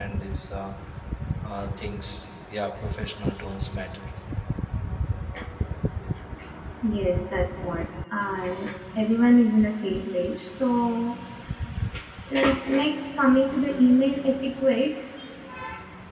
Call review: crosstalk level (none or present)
none